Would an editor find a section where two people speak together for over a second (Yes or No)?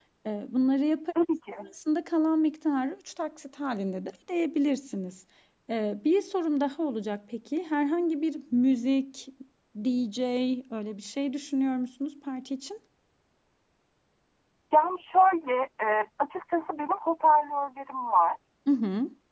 No